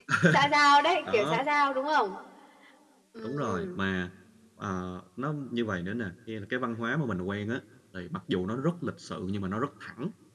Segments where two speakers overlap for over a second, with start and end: none

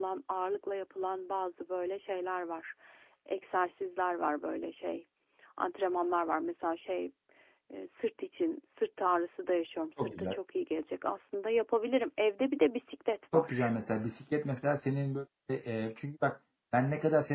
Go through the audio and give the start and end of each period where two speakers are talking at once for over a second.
none

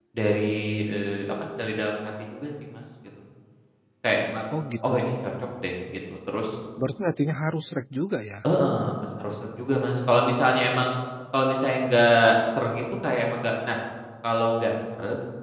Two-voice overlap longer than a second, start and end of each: none

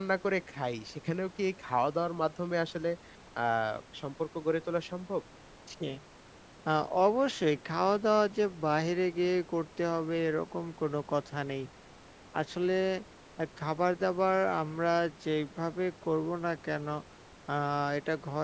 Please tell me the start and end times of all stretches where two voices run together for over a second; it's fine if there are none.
none

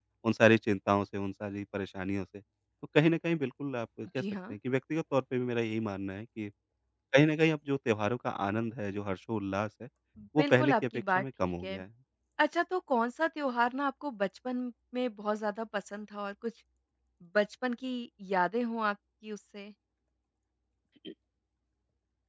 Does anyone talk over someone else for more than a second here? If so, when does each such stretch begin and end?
10.4-11.8

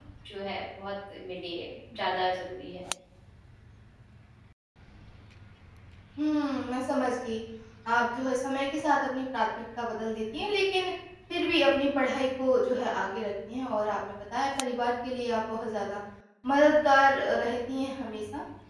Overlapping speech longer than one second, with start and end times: none

